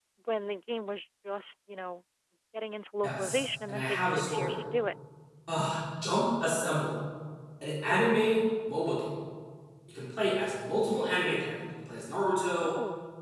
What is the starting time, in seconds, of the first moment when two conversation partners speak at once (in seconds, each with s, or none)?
3.0 s